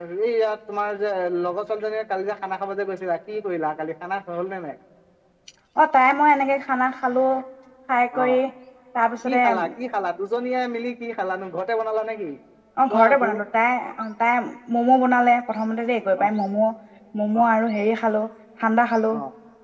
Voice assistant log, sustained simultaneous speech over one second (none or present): none